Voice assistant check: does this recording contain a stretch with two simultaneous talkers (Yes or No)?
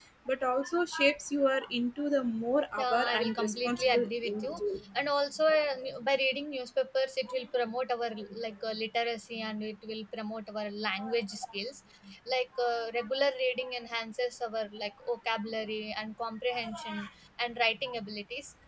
Yes